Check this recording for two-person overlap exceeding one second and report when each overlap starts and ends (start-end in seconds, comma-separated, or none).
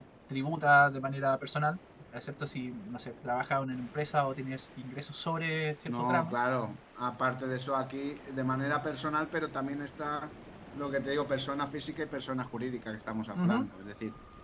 none